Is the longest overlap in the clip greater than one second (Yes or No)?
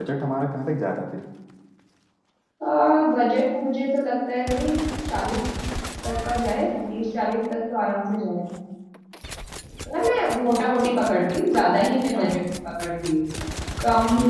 No